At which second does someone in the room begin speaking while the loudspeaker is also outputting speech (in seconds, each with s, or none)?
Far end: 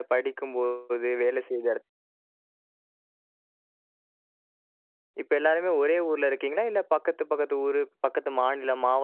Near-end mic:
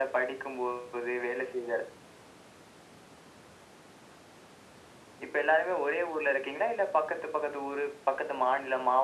none